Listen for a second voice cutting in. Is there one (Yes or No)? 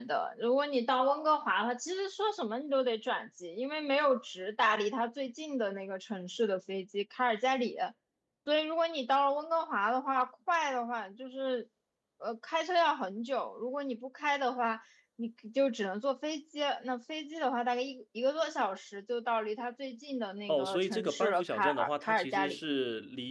Yes